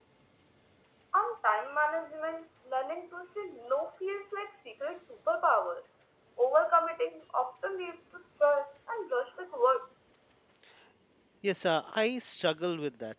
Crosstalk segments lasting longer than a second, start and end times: none

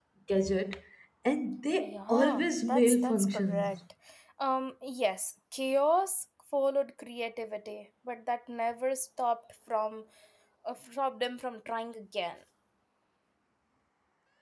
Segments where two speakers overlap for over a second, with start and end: 1.8-3.8

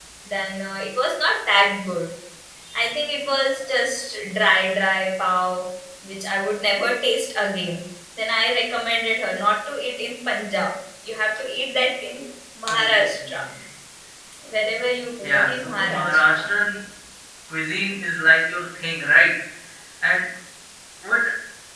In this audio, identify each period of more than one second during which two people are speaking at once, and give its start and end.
15.2-16.5

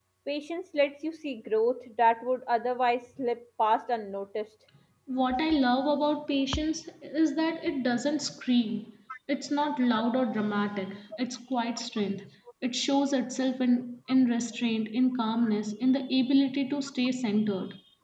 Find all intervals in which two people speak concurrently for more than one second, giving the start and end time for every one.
none

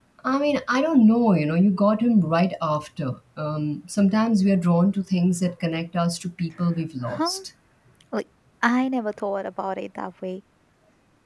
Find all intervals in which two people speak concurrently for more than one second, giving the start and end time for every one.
none

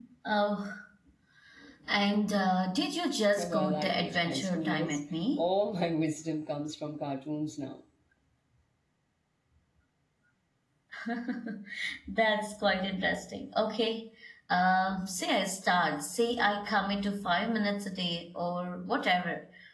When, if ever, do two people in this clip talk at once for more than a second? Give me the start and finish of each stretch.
3.4-5.0

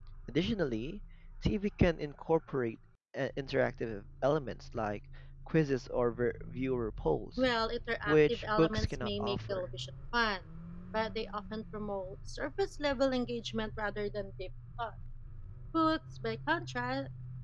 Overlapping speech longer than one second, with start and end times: 8.1-9.7

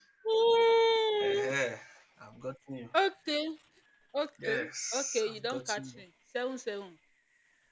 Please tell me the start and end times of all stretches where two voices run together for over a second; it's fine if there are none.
4.4-5.9

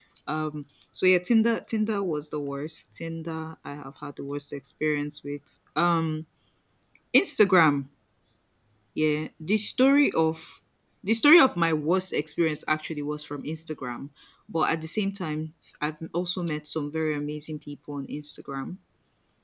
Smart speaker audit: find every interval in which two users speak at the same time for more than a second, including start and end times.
none

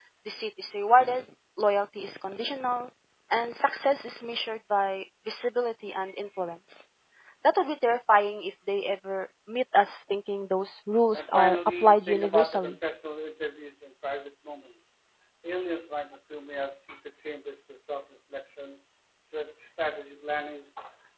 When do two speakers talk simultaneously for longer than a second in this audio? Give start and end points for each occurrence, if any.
11.1-12.7

